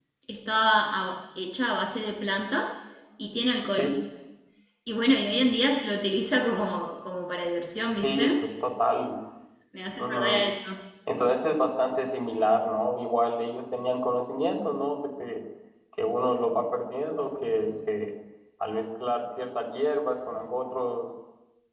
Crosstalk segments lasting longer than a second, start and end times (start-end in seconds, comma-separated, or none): none